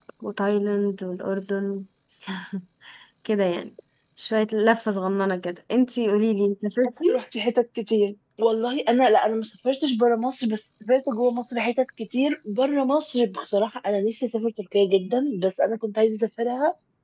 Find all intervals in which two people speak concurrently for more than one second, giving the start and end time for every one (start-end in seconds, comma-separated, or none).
none